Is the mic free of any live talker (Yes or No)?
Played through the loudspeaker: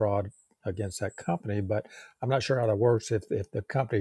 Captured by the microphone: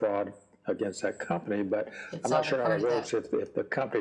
No